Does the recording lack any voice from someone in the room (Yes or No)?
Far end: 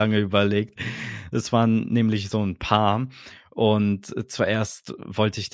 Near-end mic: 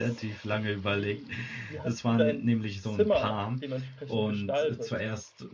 No